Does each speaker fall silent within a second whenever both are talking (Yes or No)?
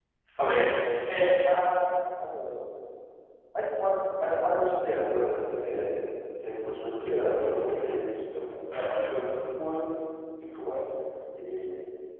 Yes